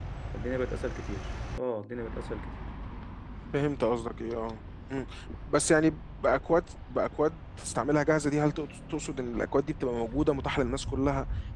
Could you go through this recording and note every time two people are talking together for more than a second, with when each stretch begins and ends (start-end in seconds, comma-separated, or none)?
none